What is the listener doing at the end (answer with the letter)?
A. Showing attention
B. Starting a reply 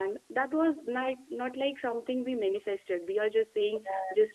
A